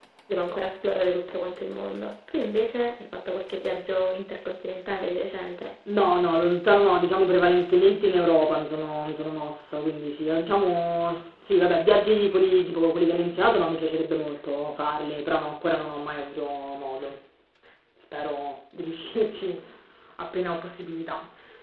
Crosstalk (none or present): none